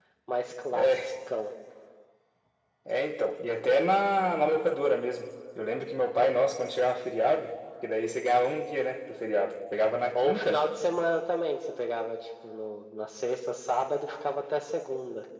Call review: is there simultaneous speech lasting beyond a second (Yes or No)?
No